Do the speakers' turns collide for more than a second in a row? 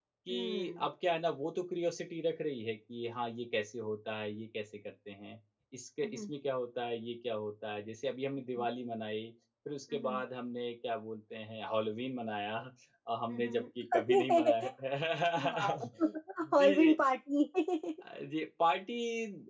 Yes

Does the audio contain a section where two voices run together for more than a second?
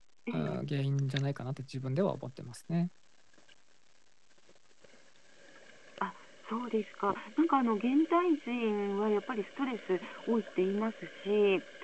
No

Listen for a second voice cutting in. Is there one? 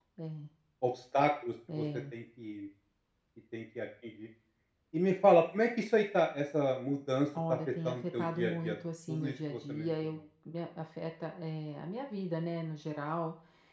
Yes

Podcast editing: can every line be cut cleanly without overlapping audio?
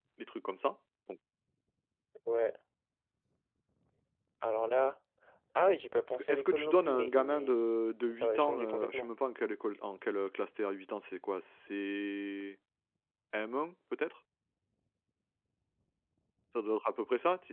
No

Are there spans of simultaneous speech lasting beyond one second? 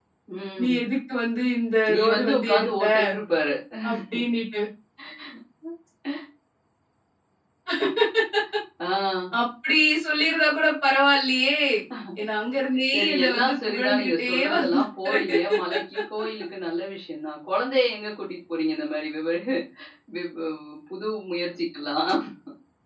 Yes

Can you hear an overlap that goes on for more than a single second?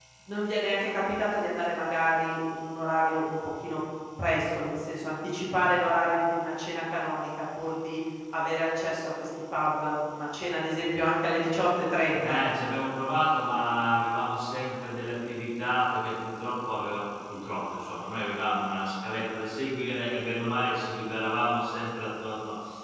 No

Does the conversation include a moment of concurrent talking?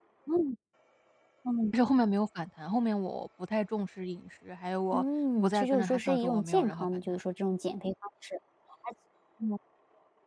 Yes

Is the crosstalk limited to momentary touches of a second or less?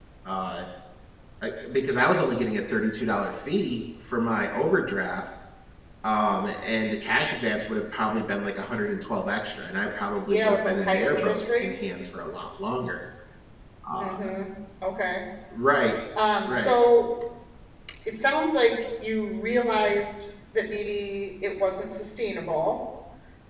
No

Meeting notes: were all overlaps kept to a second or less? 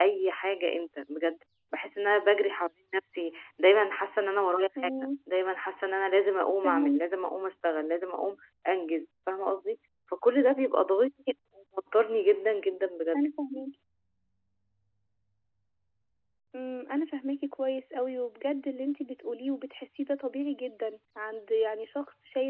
Yes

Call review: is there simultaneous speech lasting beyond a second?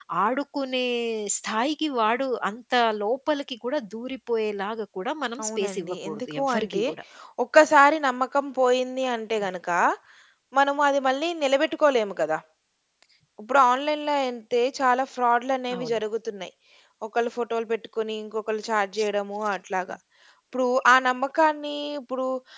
Yes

